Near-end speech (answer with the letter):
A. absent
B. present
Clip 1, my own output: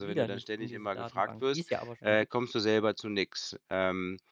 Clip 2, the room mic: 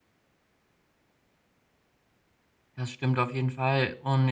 B